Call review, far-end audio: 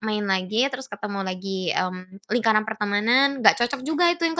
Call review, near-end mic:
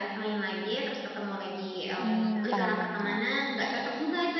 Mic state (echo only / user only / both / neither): both